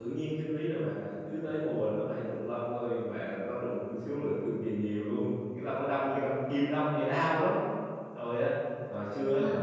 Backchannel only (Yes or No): Yes